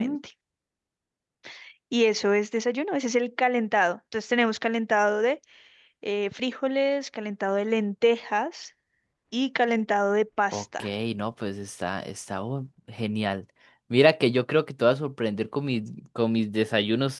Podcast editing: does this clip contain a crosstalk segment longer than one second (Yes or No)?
No